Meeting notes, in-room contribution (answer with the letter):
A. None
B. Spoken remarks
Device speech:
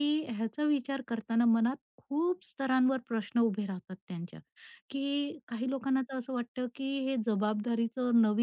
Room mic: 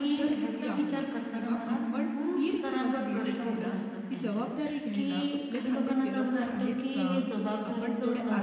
B